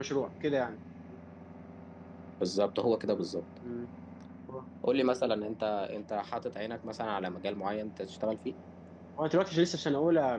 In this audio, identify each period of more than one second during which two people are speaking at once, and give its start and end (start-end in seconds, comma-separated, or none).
none